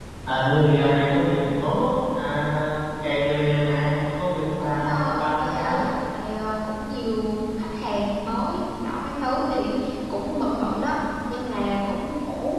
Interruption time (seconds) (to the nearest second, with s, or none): 5 s